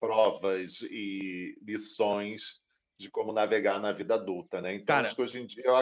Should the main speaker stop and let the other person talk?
No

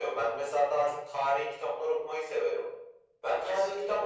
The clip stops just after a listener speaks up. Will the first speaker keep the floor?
Yes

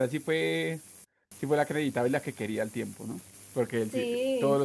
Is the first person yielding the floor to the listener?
No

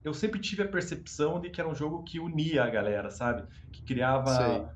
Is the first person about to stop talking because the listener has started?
No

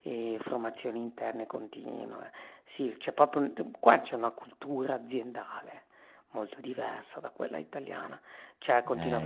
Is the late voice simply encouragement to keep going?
Yes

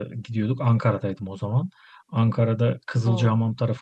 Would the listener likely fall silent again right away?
Yes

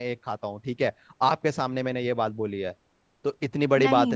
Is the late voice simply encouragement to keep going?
No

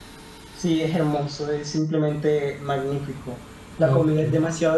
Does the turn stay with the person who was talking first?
Yes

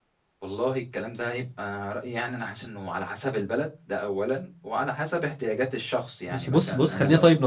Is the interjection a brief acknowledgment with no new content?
No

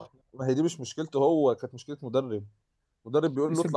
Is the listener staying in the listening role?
Yes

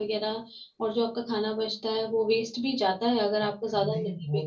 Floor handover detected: Yes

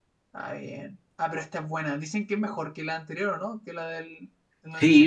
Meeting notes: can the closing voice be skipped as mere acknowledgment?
No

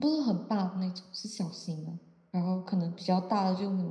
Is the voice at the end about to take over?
No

